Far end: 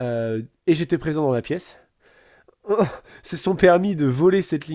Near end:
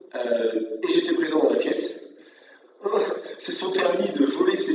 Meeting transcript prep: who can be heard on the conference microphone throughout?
echo only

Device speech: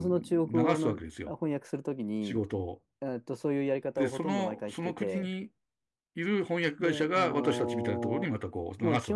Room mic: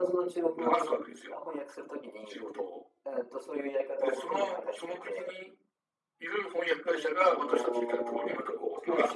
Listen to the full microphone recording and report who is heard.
echo only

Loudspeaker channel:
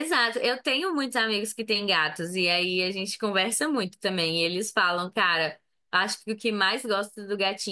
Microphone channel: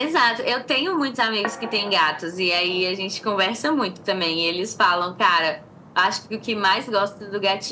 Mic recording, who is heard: echo only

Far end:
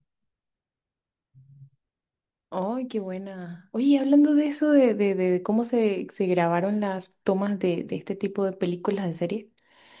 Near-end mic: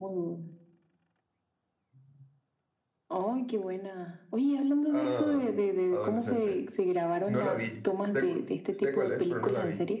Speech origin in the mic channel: both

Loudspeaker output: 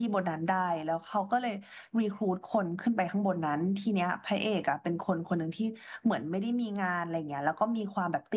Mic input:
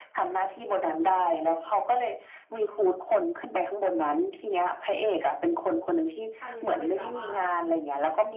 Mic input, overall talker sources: both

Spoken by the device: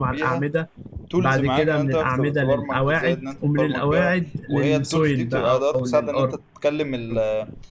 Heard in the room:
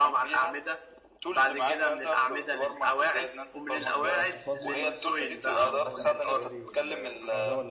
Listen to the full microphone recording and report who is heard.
both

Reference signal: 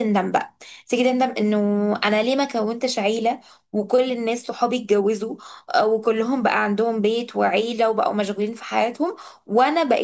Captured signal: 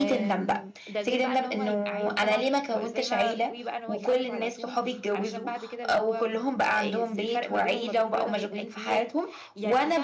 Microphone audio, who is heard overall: both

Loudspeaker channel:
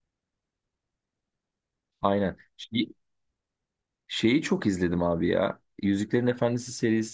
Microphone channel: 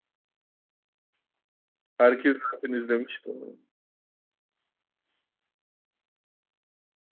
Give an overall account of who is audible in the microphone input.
user only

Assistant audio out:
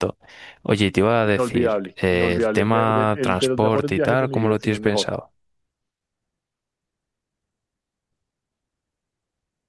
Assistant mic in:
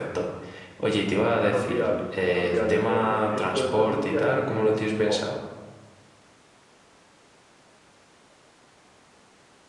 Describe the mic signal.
echo only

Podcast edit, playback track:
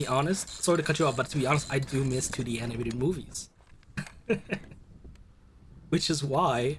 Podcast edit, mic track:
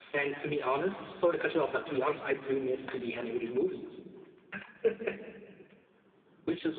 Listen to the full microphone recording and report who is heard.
echo only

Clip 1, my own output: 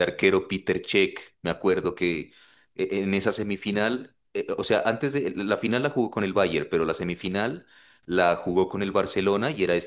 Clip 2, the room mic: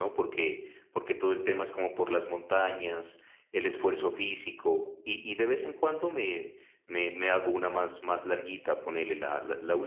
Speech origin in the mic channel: user only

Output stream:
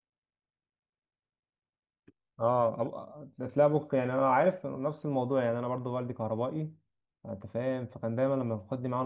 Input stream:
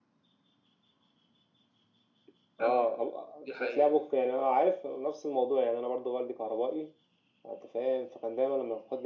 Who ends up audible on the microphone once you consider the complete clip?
both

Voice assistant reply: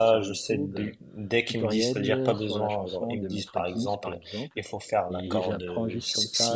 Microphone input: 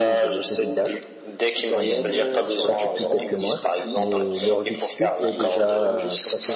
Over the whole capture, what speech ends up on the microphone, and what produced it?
both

